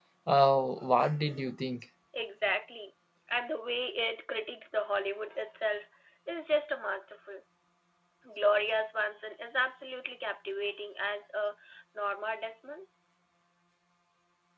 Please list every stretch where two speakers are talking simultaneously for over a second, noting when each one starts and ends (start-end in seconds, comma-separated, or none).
none